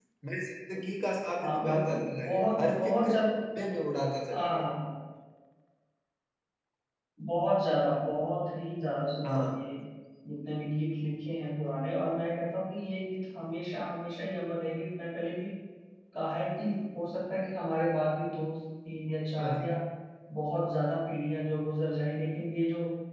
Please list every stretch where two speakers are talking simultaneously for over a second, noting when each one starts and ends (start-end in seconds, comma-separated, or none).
1.4-3.3